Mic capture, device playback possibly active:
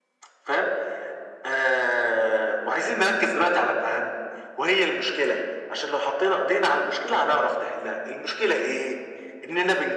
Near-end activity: none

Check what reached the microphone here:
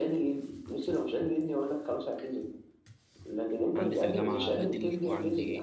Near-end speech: present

